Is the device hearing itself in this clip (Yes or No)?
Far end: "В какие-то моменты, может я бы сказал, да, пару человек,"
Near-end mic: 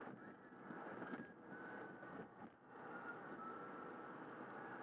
No